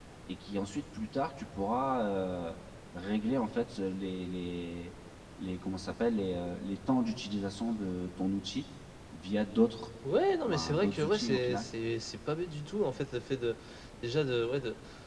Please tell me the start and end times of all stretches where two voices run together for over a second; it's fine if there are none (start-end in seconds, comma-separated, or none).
10.4-11.7